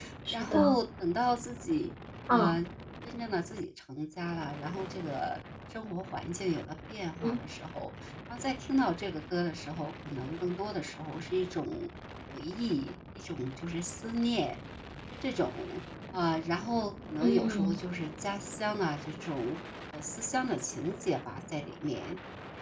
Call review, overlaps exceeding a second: none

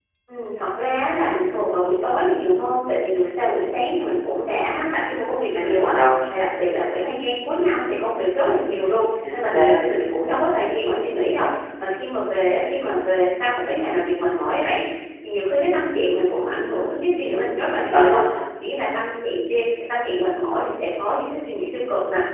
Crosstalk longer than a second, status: none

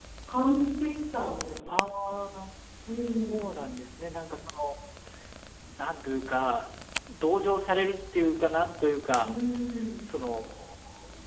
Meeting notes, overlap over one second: none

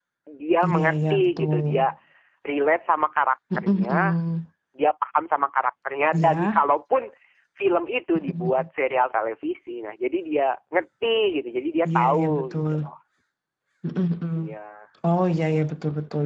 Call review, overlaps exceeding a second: present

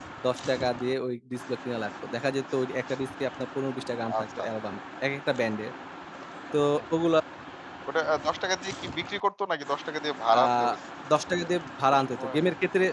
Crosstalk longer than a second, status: none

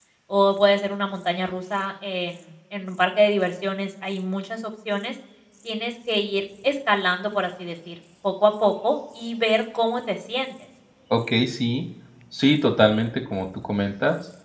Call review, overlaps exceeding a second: none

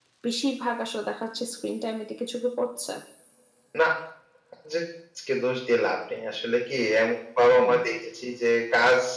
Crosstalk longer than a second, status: none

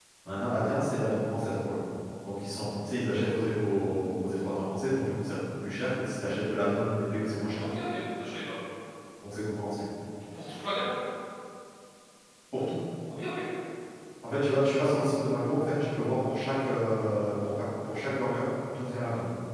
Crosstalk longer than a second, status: none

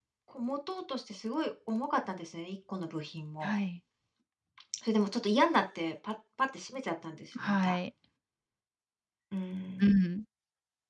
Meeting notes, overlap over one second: none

